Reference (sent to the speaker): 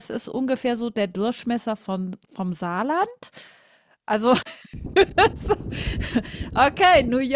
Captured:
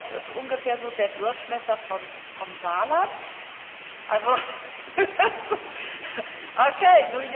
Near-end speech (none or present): none